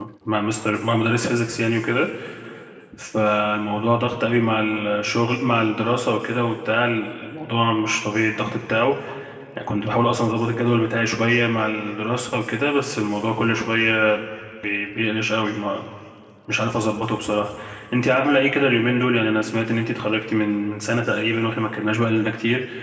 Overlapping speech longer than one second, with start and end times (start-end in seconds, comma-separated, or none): none